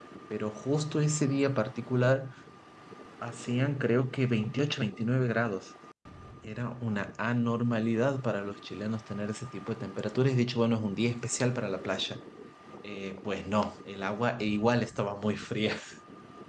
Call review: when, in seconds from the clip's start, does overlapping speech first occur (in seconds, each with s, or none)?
none